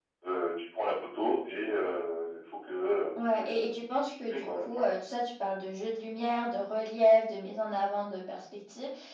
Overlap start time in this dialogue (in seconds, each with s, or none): 3.1 s